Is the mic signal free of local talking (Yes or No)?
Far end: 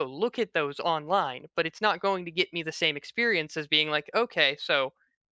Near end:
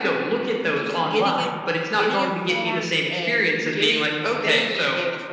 No